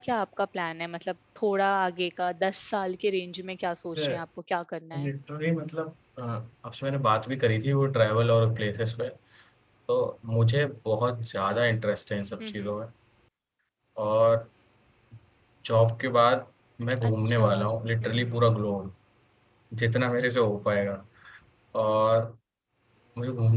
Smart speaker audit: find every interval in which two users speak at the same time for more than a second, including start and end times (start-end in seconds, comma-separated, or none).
17.1-18.6